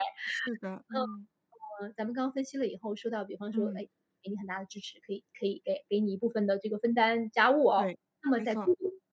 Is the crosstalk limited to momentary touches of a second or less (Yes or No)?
Yes